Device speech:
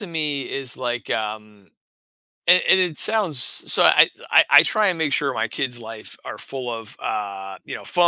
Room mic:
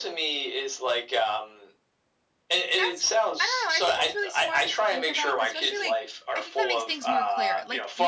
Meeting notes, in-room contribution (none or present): present